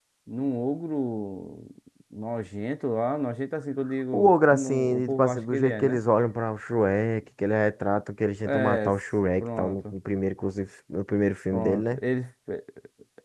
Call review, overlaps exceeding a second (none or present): present